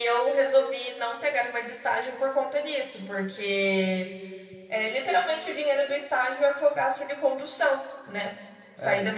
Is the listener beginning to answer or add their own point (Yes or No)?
No